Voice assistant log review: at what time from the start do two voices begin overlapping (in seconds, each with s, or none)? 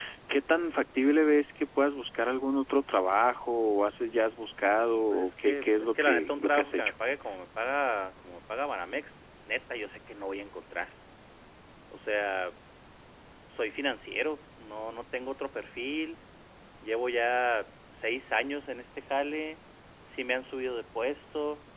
5.1 s